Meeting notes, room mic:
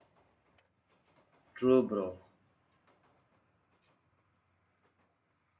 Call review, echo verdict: none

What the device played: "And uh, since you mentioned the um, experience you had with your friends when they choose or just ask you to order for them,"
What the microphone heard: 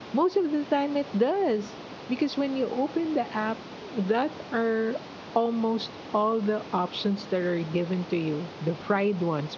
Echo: none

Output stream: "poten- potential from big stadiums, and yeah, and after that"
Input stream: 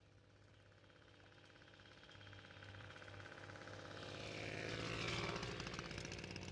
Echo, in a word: none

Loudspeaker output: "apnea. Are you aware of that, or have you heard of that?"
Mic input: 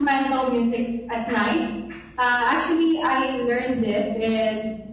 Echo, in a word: none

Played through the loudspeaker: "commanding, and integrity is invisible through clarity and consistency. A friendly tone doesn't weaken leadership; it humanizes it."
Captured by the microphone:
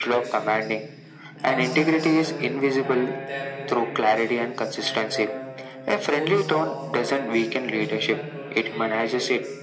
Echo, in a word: present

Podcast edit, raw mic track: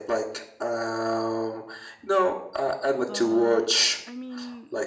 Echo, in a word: present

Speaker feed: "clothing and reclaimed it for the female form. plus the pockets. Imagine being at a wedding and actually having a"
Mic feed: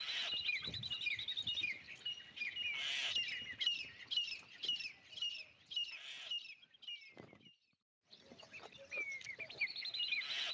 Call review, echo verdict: none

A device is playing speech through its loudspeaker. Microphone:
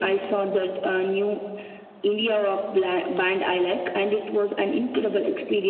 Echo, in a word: present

